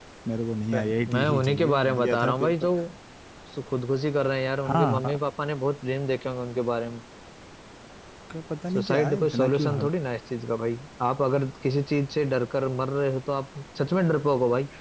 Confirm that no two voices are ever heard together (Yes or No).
No